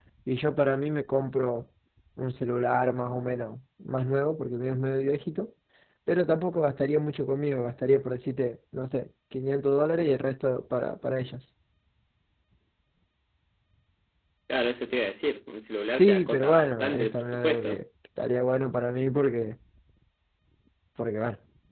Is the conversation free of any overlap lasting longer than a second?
No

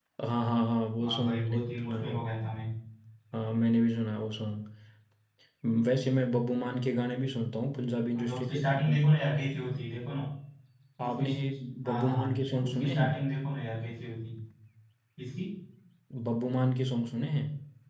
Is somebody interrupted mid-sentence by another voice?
Yes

